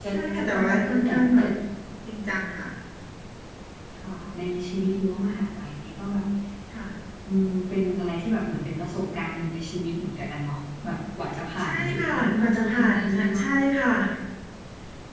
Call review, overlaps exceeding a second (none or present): present